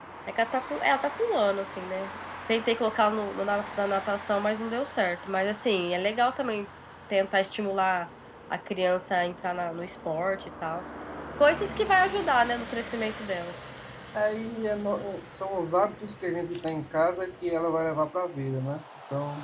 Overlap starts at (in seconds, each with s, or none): none